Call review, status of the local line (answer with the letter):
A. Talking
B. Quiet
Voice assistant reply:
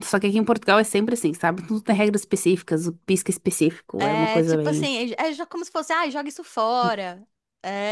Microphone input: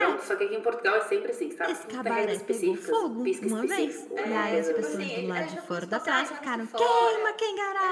A